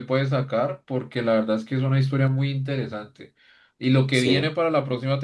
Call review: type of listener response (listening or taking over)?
listening